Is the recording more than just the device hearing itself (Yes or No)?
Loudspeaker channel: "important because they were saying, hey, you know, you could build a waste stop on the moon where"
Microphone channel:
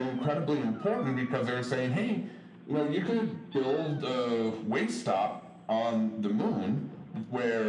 No